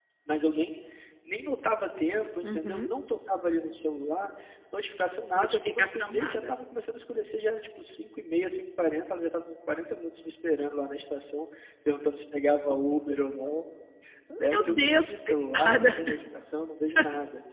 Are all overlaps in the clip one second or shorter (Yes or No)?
No